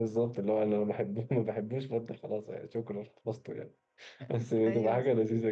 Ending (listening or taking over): listening